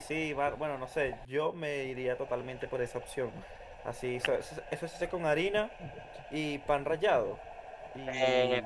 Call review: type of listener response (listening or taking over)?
taking over